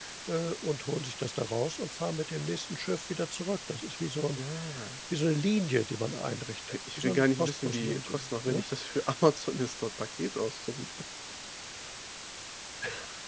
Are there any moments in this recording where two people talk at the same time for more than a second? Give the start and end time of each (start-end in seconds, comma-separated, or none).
6.7-8.6